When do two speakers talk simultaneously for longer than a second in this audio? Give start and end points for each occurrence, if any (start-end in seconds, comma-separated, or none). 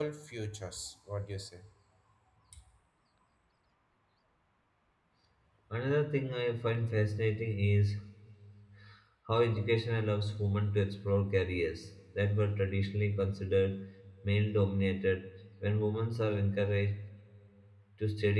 none